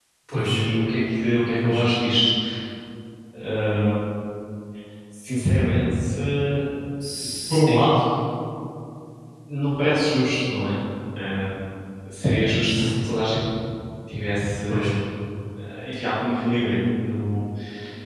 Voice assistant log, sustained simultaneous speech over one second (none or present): none